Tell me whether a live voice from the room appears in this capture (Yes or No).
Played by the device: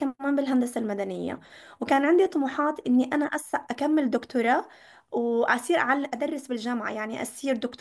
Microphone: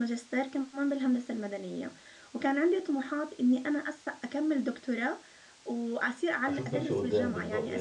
Yes